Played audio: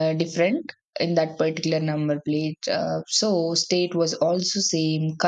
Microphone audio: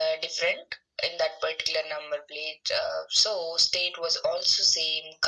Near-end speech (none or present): none